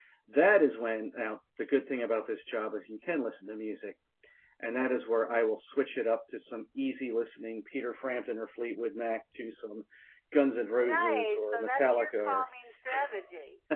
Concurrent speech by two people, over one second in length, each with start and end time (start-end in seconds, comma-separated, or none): 10.8-12.4